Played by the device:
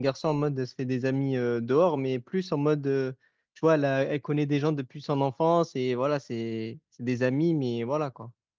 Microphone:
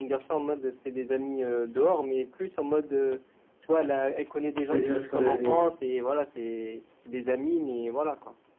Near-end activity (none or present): present